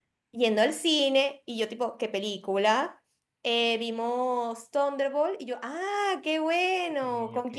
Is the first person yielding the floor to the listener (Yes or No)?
No